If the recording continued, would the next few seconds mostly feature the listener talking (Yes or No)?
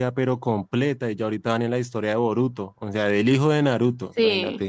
No